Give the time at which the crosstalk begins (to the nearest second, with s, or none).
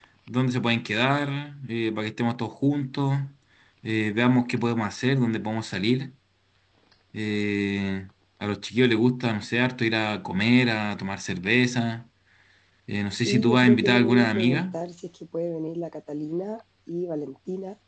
13 s